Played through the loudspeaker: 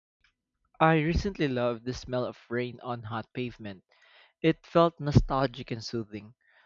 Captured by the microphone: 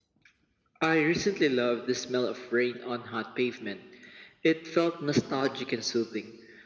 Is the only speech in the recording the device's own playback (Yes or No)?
Yes